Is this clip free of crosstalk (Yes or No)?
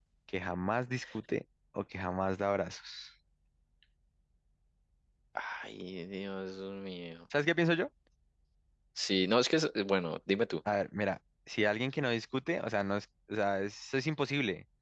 Yes